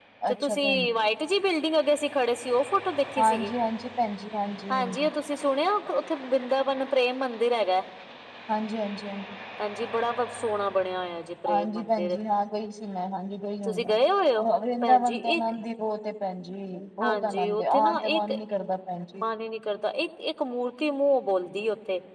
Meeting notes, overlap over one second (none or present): present